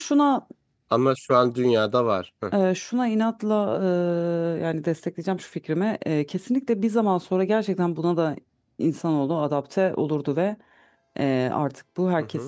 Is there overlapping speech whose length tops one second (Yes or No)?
No